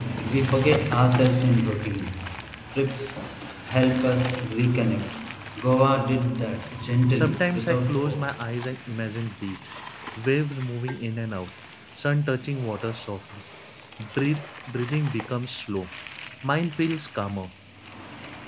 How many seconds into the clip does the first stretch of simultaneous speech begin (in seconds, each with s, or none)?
7.1 s